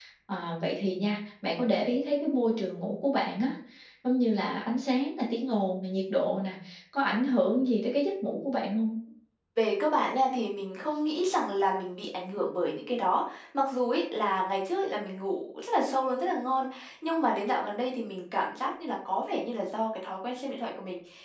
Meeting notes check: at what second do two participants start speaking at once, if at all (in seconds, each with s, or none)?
none